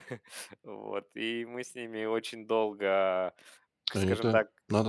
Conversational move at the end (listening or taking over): taking over